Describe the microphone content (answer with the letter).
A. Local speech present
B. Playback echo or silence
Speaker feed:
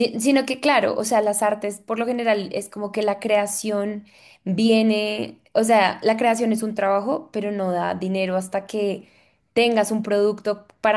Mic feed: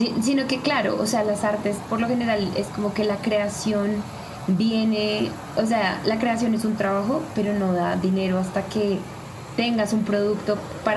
B